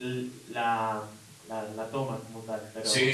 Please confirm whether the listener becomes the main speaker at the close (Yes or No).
Yes